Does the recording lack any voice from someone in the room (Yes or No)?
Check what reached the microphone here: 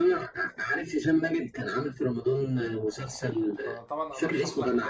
No